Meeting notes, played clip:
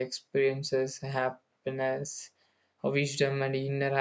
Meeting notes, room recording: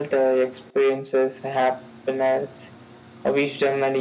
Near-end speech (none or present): none